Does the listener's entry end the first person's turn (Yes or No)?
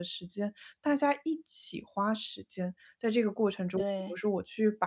No